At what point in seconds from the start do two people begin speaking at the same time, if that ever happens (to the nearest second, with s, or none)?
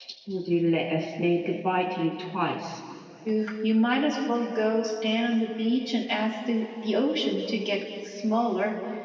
none